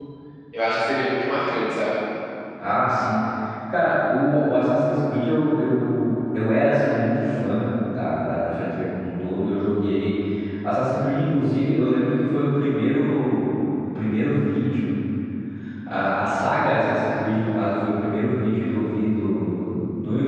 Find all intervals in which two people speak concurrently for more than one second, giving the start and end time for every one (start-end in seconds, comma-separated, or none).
none